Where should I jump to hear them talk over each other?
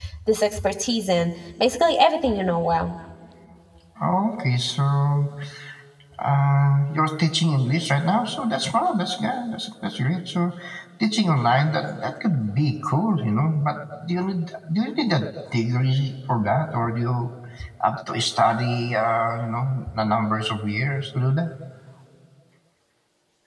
none

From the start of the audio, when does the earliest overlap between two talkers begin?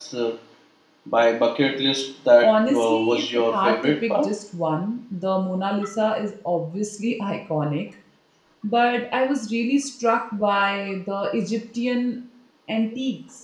2.4 s

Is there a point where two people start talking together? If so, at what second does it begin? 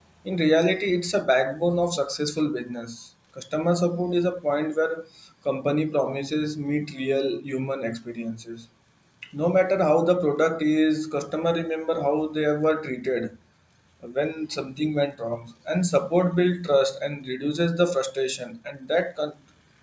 none

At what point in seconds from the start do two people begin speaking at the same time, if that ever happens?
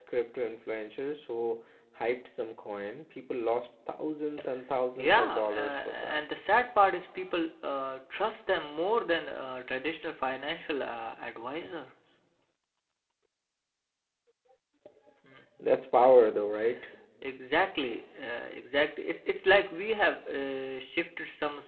5.0 s

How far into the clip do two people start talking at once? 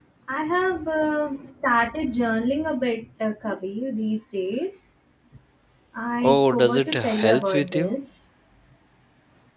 6.2 s

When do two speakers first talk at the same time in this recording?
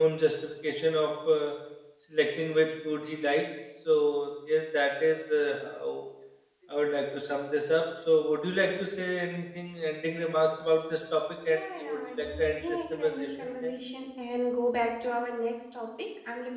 11.4 s

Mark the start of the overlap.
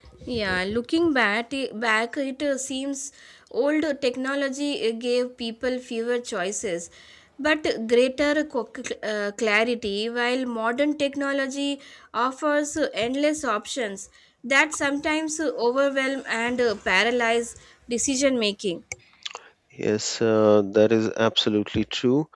none

